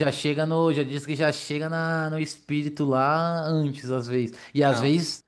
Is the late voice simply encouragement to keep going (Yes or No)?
Yes